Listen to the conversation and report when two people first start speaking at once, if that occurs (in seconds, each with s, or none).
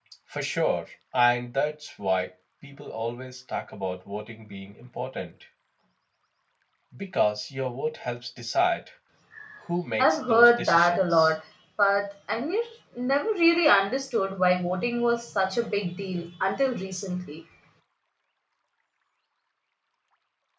10.0 s